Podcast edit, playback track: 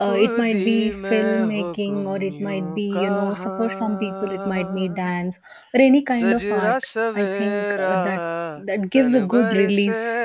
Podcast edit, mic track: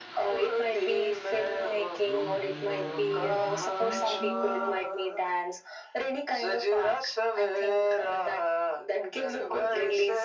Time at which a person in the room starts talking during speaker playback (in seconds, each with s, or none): 2.1 s